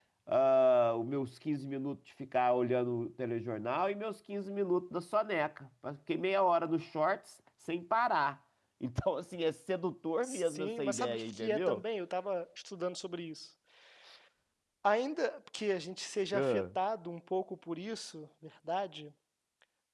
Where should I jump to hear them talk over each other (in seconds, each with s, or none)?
10.2 s